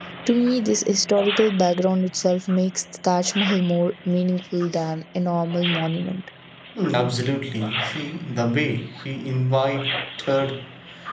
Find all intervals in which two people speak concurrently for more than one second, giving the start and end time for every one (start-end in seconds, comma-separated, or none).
none